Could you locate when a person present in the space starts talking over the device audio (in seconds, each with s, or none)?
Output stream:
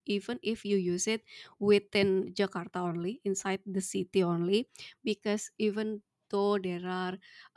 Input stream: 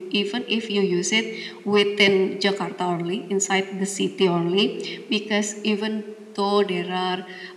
none